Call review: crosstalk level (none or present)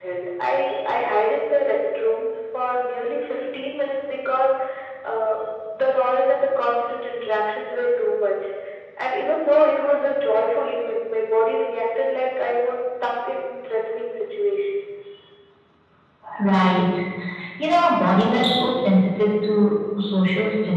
none